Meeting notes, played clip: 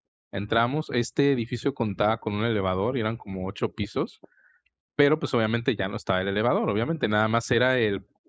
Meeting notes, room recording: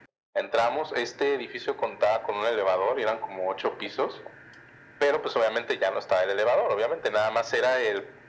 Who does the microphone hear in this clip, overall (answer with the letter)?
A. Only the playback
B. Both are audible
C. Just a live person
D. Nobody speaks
A